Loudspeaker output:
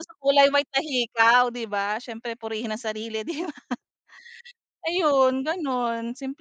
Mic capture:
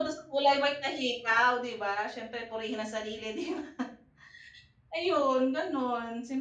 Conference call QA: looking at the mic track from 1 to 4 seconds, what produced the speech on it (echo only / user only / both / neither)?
echo only